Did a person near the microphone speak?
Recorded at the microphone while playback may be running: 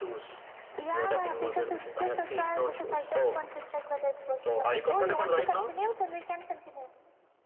No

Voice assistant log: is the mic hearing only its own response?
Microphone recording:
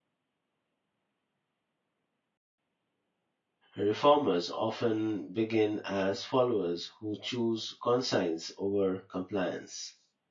No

